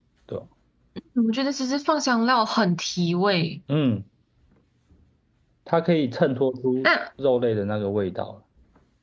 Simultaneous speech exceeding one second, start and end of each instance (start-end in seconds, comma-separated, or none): none